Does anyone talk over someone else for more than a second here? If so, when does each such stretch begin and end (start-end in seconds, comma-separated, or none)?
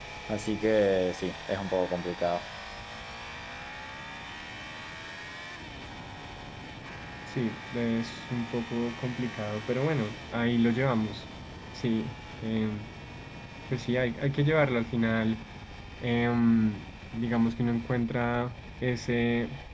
none